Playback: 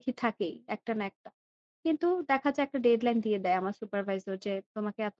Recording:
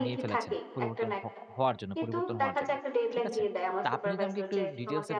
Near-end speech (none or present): present